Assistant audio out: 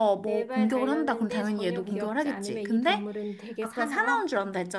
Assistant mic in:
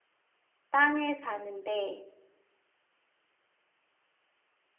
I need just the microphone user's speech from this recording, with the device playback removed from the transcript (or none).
땅에 사는데